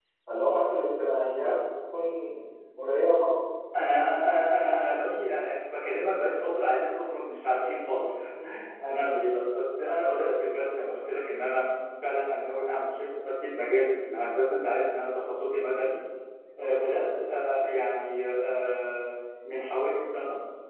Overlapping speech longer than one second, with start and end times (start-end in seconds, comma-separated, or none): none